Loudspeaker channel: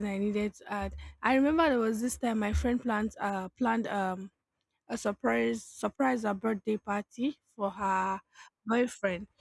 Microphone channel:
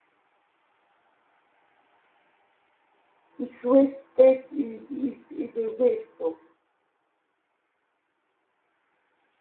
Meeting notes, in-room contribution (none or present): present